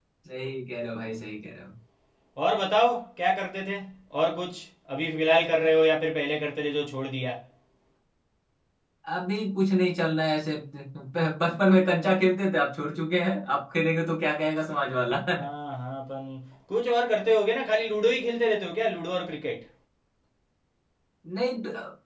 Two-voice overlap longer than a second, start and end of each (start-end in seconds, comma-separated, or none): none